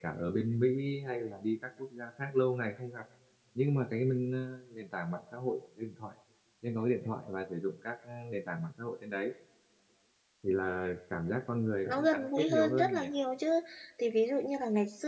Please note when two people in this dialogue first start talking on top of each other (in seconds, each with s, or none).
11.8 s